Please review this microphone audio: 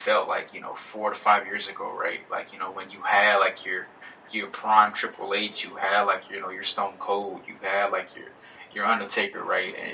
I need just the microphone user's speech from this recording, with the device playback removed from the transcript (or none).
none